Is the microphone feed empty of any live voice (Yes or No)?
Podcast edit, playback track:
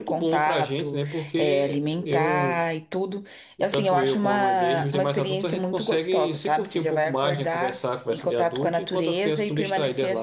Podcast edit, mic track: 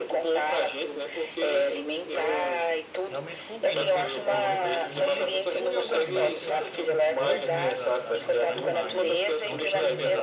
No